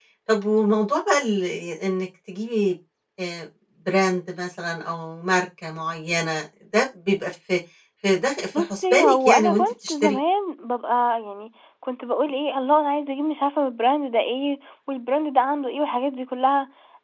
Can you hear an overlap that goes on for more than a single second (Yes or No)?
Yes